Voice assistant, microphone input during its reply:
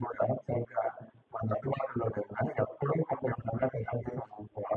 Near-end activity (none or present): none